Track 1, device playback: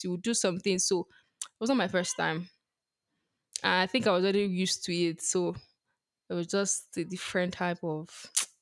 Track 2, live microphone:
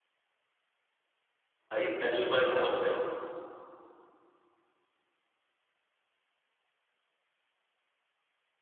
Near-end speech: present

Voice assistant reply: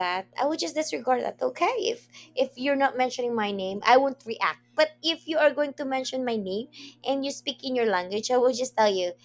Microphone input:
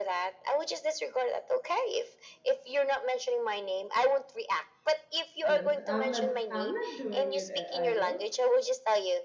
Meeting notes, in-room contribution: present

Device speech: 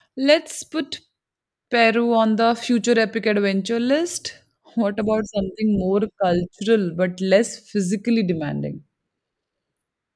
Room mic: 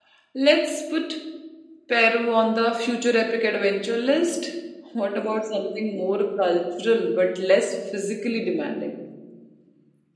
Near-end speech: none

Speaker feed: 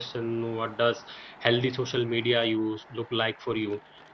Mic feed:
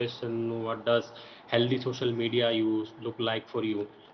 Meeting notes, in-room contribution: none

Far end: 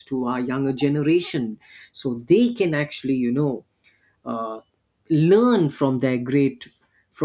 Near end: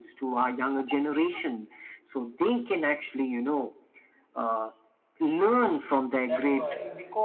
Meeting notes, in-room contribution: present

